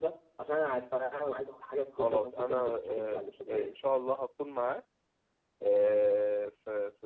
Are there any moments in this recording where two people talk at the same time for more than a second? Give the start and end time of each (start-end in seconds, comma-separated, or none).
2.0-3.8